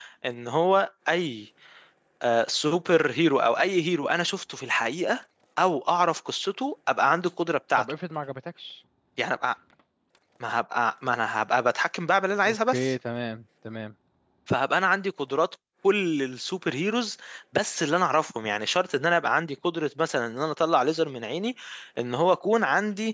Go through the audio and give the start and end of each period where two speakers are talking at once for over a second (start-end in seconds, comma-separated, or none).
none